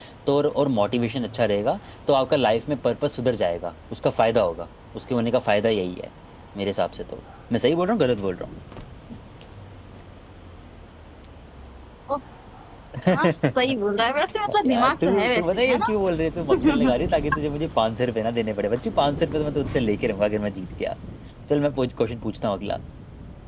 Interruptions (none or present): present